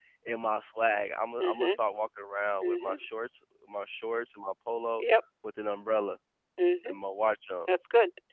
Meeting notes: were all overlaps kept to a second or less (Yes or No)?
Yes